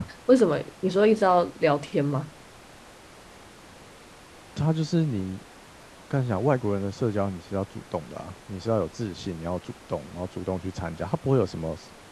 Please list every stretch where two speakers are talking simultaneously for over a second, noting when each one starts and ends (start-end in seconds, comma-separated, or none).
none